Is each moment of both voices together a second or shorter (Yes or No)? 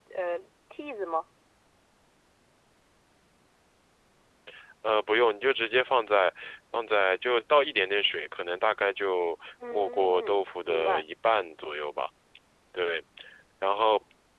No